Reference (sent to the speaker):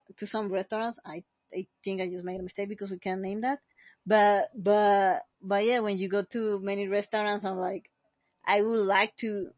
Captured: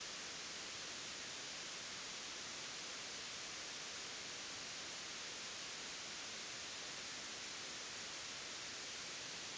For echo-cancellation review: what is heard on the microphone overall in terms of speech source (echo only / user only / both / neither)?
neither